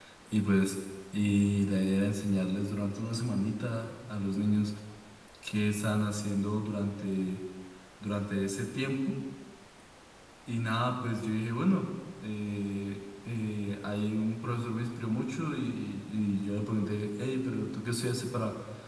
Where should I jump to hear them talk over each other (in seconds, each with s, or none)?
none